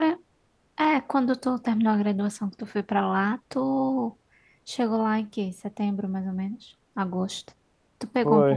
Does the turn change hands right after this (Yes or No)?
Yes